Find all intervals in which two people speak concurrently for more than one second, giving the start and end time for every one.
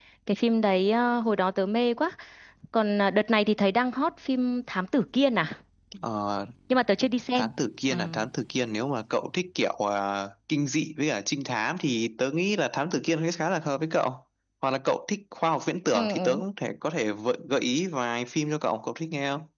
none

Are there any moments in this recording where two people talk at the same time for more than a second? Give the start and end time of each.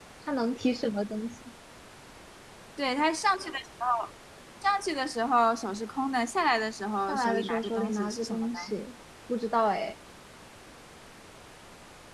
7.1-8.7

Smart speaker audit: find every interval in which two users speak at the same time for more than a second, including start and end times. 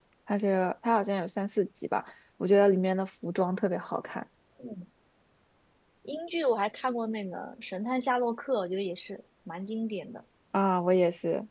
none

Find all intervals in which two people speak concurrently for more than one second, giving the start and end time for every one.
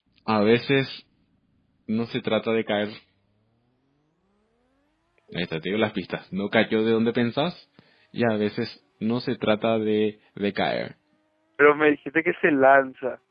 none

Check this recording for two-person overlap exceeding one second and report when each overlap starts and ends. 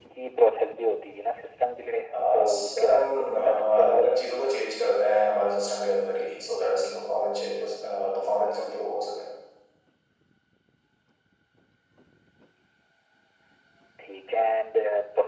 2.3-4.0

